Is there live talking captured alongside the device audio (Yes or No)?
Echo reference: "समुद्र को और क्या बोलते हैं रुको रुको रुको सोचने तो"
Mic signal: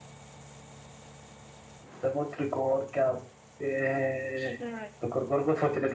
Yes